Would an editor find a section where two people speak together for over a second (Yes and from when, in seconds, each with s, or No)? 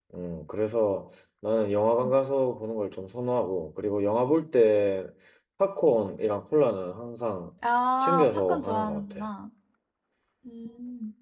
Yes, from 8.0 s